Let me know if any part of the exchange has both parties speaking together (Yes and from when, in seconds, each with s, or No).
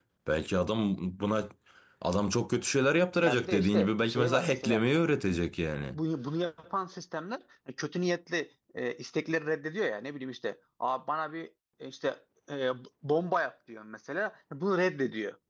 Yes, from 3.2 s